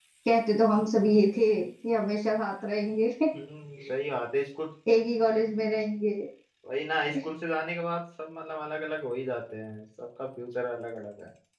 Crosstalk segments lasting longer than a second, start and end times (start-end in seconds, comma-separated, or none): none